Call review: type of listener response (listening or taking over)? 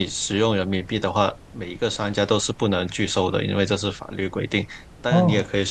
listening